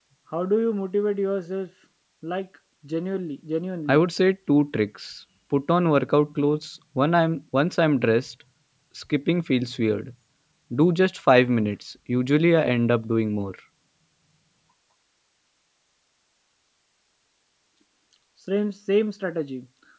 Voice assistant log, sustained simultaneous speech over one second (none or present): none